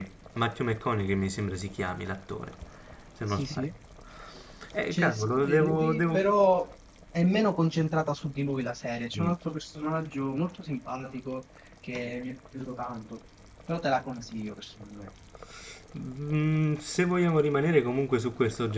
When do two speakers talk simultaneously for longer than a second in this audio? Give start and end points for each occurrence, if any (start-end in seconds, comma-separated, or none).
4.9-6.2